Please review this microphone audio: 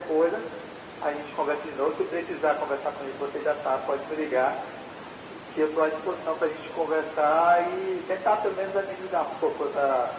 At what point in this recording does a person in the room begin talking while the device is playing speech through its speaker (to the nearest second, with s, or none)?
none